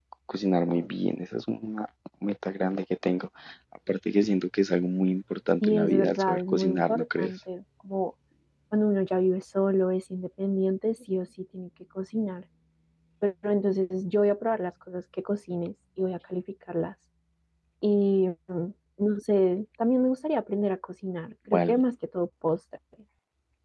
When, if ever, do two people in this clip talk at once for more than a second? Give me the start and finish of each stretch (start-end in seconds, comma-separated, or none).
5.6-7.3